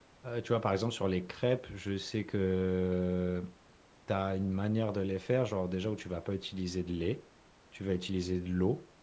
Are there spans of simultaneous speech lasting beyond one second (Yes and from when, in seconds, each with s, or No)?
No